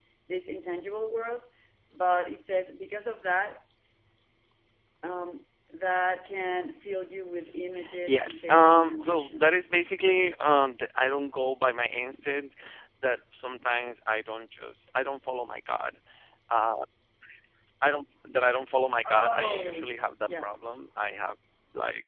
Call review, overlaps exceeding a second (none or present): present